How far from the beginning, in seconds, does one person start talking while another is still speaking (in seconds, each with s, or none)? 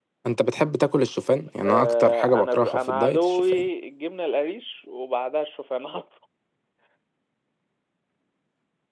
1.6 s